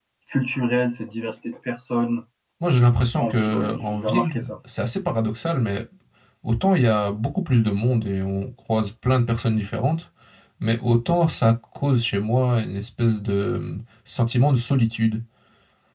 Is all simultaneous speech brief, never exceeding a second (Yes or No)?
No